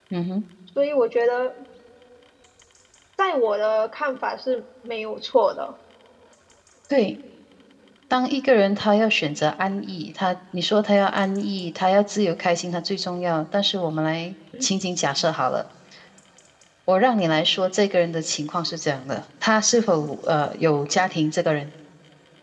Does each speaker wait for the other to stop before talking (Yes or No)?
Yes